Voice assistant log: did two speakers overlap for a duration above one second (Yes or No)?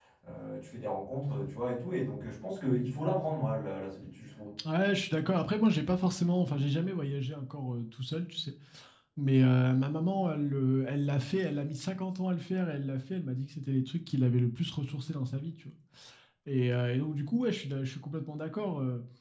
No